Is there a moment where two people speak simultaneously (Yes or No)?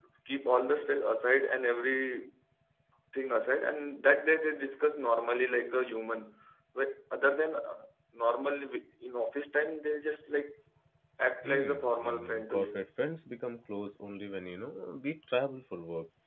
Yes